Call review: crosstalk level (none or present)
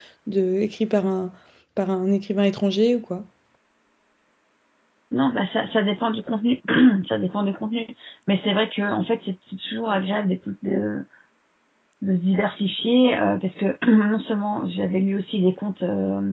none